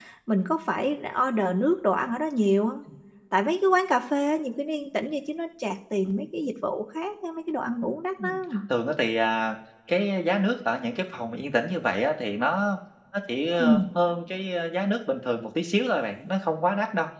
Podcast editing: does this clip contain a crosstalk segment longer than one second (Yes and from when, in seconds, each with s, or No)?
No